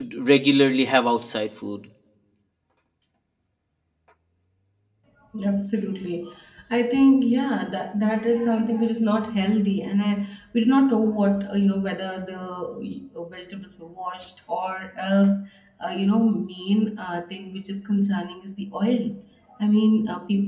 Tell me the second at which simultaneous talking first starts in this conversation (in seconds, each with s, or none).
none